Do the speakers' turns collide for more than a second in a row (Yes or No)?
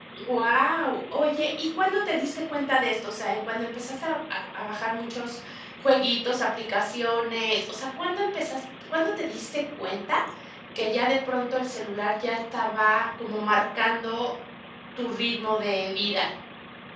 No